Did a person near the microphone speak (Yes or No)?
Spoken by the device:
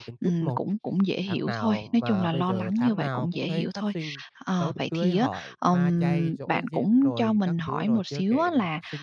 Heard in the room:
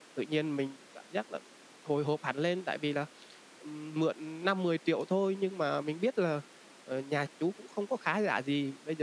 Yes